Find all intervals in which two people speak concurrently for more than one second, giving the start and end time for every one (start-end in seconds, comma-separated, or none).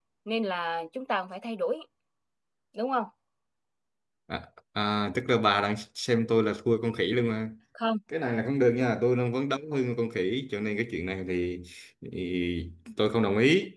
none